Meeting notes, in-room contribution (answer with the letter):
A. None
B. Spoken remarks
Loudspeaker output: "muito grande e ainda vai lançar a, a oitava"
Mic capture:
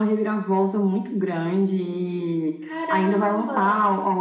B